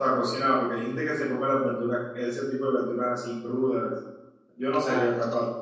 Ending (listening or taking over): taking over